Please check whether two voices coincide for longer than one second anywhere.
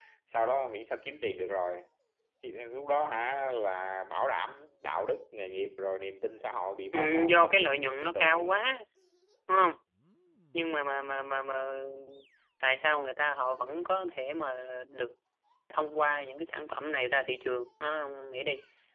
Yes, from 6.9 s

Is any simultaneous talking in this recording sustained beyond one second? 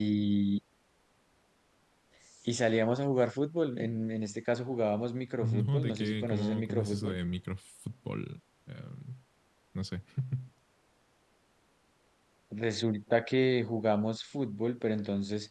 Yes, from 5.4 s

